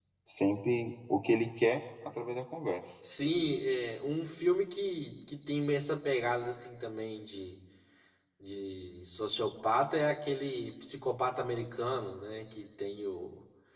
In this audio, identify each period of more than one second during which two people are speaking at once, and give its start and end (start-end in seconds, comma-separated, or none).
none